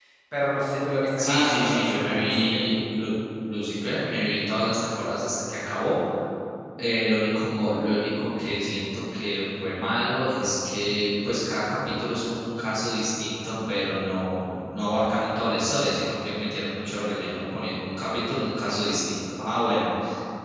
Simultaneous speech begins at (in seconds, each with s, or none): 1.2 s